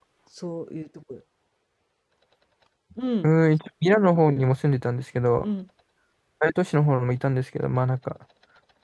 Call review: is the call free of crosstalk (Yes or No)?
Yes